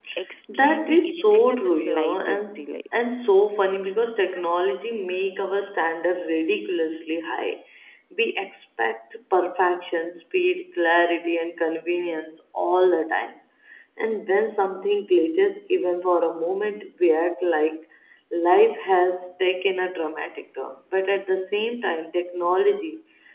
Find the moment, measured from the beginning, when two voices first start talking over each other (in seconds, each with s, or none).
0.5 s